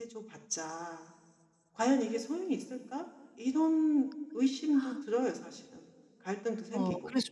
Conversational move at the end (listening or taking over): taking over